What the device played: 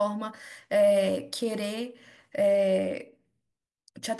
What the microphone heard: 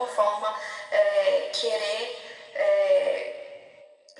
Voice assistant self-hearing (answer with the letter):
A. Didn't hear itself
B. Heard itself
B